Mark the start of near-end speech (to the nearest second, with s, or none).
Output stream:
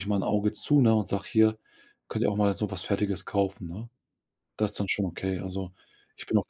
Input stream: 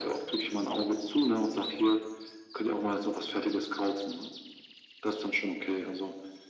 none